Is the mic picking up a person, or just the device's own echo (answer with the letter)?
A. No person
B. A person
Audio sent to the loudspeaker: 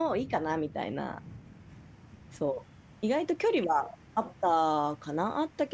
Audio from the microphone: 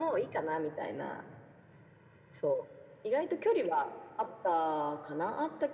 A